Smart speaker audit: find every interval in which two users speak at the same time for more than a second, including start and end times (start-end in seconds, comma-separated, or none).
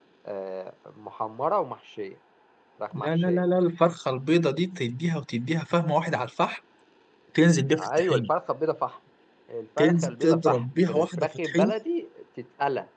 9.8-11.7